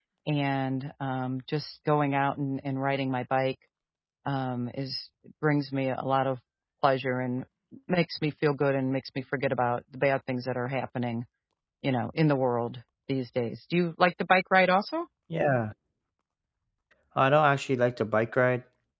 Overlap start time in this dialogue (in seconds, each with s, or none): none